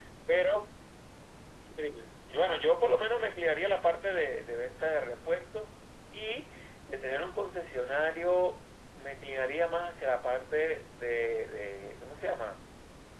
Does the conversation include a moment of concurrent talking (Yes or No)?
No